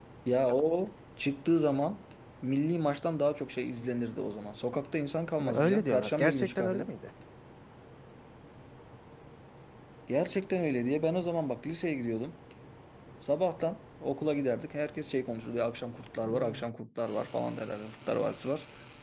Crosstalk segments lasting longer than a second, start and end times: 5.5-6.9

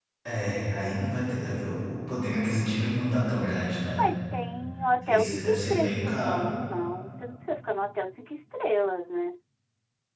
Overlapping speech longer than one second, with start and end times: 5.0-6.4

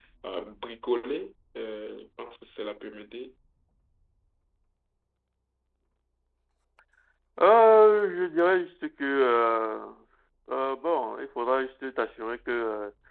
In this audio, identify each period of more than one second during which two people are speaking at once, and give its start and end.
none

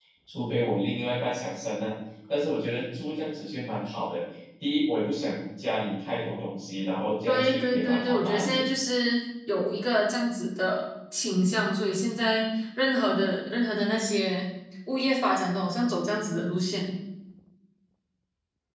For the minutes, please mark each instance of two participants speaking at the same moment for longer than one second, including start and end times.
7.3-8.7

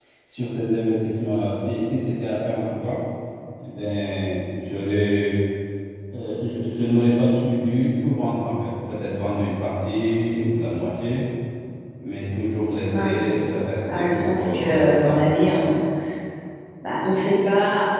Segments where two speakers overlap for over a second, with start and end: 13.9-15.4

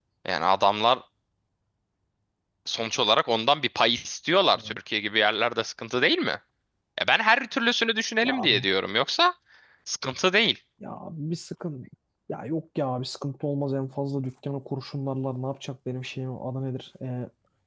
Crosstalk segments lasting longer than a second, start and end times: none

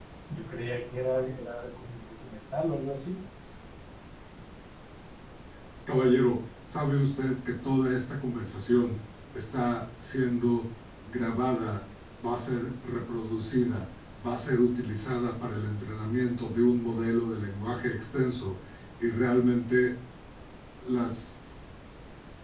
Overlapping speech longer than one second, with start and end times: none

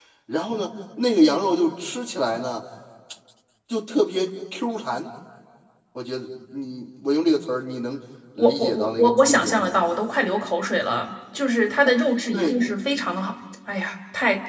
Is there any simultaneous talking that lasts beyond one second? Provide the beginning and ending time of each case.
8.4-9.8

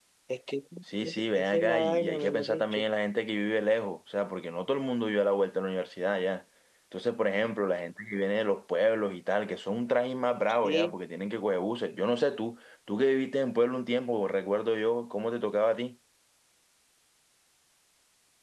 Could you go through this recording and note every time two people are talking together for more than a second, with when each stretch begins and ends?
1.0-2.8

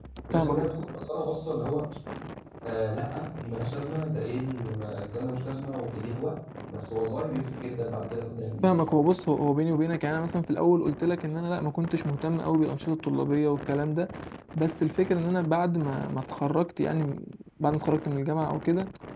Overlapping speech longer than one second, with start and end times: none

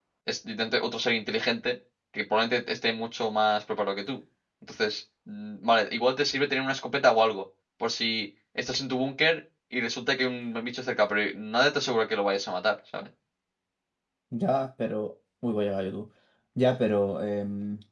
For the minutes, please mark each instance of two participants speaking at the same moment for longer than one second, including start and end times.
none

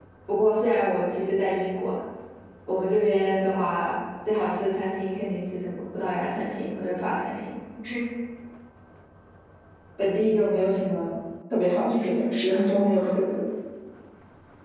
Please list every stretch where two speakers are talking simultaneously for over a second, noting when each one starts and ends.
11.8-13.1

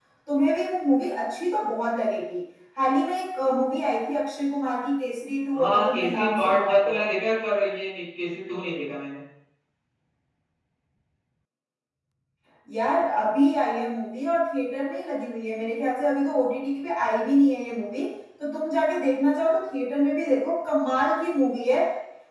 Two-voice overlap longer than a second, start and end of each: 5.6-7.0

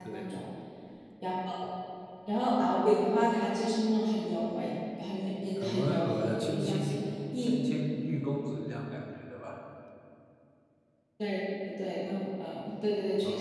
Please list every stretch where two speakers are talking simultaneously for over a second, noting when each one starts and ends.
5.6-6.8

